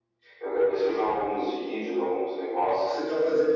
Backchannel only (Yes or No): No